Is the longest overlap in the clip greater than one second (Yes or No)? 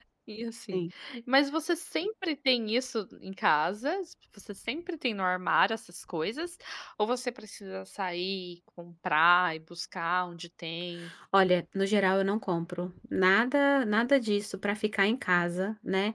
No